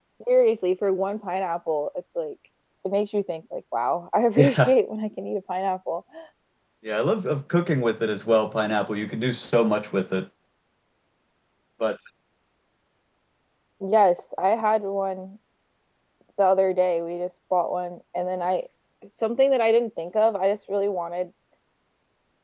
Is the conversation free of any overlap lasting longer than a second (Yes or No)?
Yes